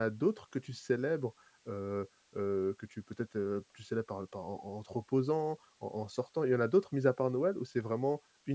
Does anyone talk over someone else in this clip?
No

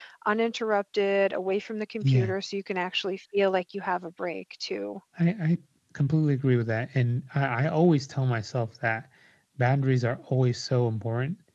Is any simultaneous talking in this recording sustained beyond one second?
No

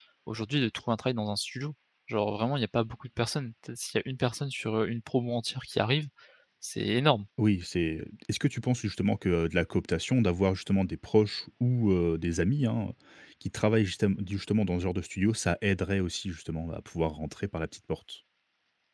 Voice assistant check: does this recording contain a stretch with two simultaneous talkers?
No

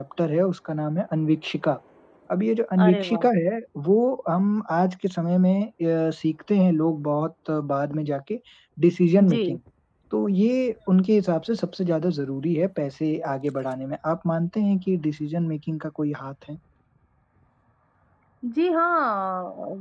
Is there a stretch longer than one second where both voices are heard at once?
No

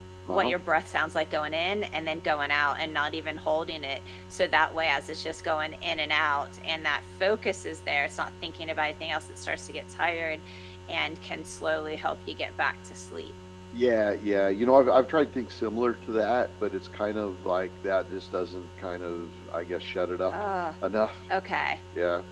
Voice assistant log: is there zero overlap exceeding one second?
Yes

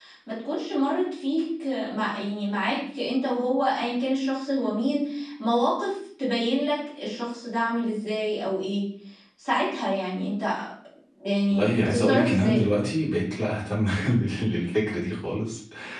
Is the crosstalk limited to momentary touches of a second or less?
No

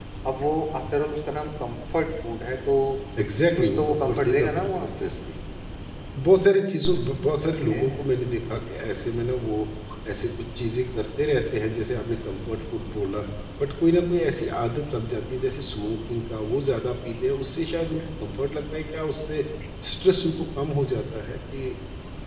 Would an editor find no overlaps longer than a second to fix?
No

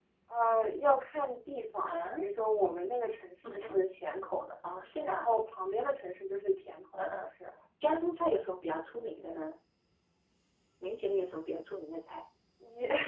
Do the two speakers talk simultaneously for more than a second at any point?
No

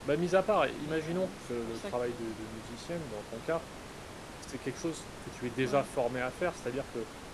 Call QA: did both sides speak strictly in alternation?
No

